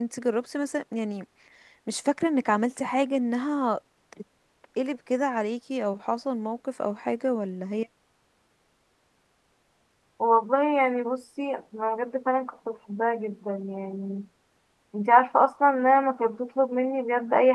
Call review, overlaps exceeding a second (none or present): none